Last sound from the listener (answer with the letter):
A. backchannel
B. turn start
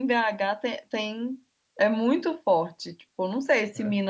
A